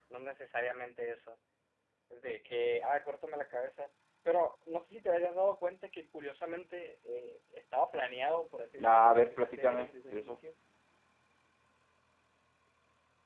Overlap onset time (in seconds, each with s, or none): 8.8 s